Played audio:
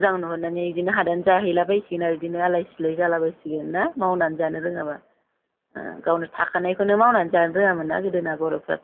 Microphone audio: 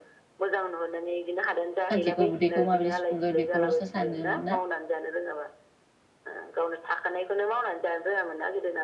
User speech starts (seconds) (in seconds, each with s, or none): 1.9 s